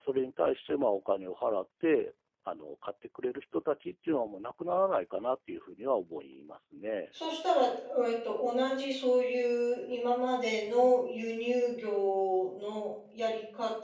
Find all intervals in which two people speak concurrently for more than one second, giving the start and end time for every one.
none

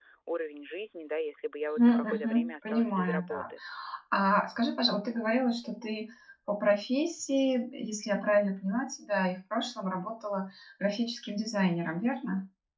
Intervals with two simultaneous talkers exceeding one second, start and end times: 1.8-3.4

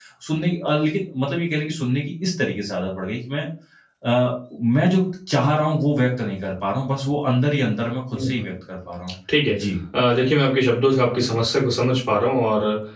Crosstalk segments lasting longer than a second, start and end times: none

